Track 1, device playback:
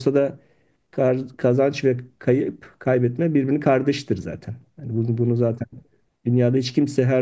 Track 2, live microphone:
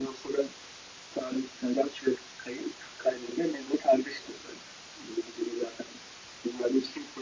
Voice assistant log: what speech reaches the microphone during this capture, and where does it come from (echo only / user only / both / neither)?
echo only